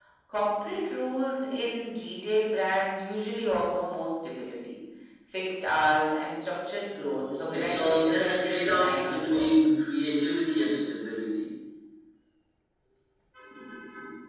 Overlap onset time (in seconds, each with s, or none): 7.4 s